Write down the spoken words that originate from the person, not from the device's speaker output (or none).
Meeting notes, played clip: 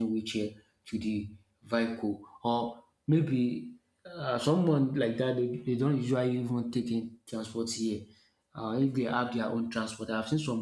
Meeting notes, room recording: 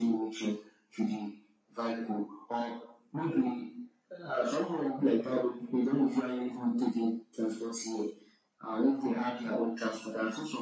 none